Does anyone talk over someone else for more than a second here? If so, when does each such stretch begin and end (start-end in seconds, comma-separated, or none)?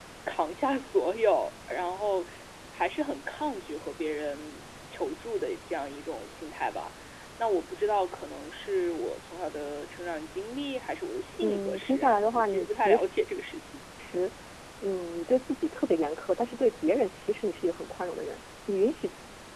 11.4-13.0